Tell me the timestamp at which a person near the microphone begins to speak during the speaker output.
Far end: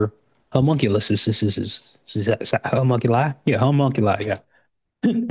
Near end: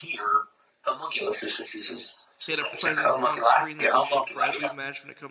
2 s

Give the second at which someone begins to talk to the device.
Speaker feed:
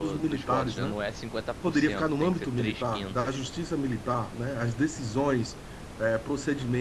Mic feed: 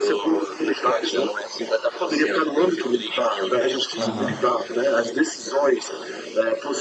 4 s

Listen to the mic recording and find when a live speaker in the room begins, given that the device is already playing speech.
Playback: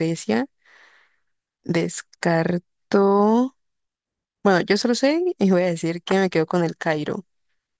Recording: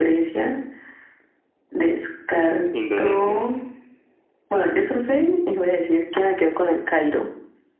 3 s

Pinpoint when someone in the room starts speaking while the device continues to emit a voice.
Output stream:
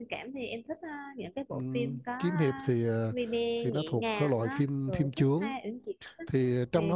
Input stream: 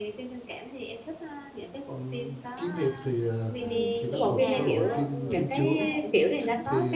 4 s

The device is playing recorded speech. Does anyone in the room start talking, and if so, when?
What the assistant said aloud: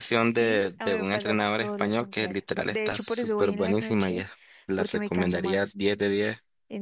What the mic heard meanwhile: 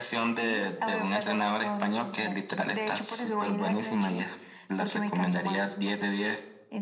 none

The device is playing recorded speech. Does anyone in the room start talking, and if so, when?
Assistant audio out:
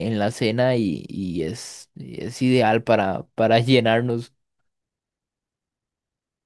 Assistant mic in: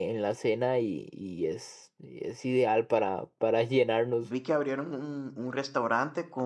4 s

